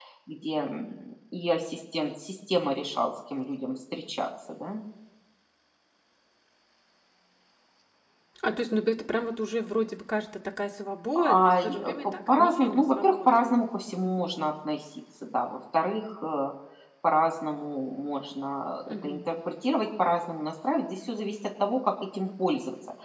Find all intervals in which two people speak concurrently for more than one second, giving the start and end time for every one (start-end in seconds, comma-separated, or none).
11.2-13.4